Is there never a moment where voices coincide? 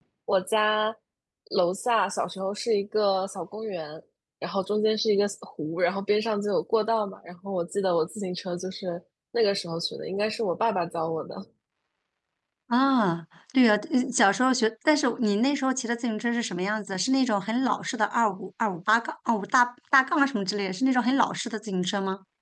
Yes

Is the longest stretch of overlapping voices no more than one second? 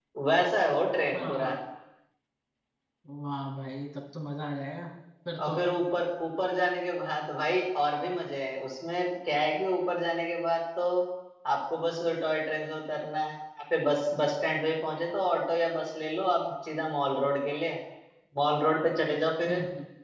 Yes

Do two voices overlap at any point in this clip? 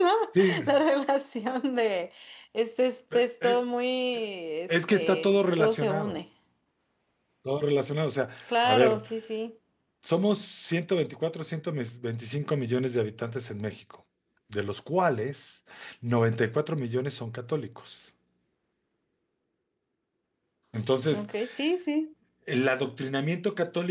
Yes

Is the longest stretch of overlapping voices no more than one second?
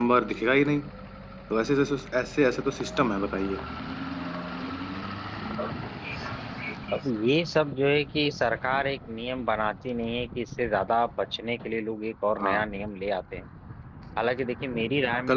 Yes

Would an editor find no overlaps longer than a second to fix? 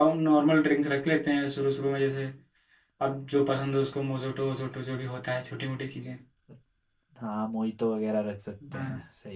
Yes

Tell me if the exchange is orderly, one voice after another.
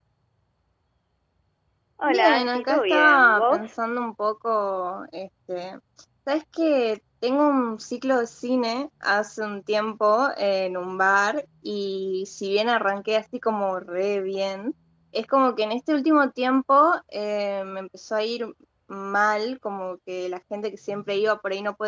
No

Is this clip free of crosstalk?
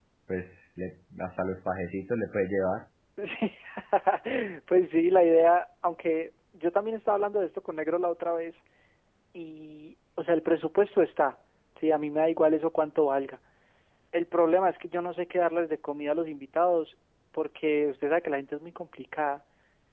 Yes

